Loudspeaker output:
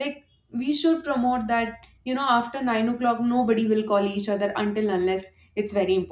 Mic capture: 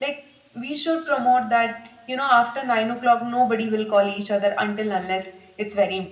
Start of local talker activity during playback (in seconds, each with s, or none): none